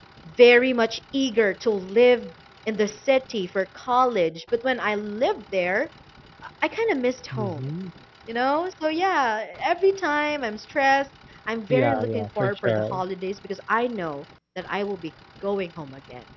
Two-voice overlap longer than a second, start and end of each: 11.7-13.0

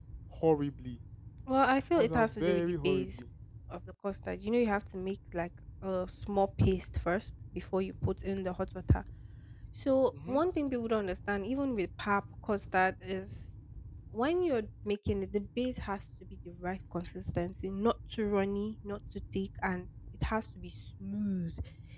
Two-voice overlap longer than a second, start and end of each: 1.9-3.2

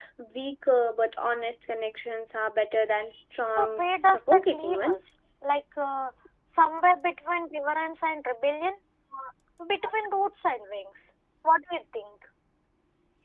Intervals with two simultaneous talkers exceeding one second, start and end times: 3.5-5.0

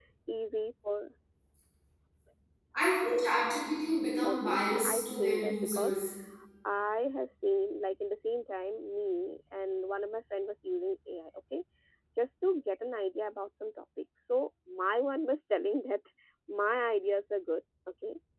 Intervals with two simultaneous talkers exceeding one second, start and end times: 4.2-6.0

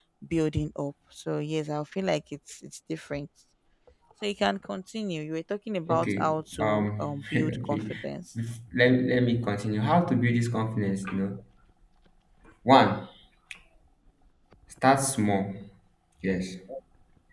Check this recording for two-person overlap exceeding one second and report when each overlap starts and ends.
5.9-7.8

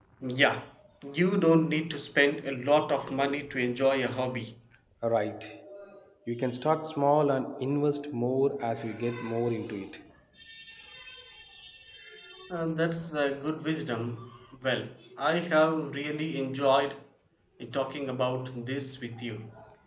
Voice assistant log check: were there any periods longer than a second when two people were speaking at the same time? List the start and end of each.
none

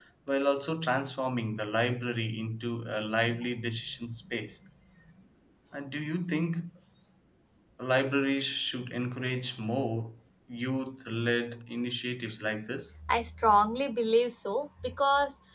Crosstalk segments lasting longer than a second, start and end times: none

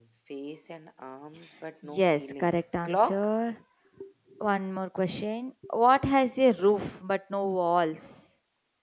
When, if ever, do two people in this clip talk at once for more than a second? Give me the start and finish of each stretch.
1.8-3.3

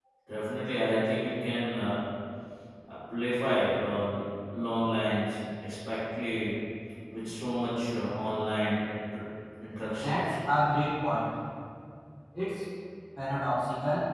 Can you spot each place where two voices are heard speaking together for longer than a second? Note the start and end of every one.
none

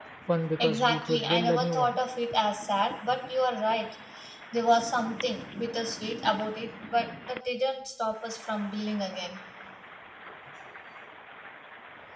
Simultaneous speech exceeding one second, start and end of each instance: 0.6-2.0

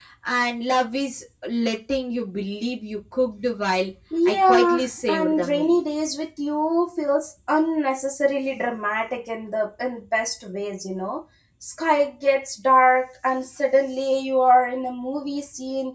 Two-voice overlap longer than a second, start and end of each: 4.2-5.8

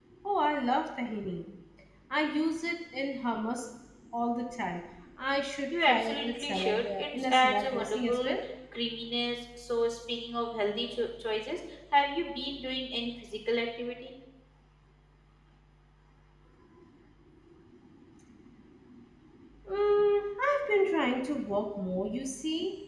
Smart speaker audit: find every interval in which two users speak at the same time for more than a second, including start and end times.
5.9-8.4

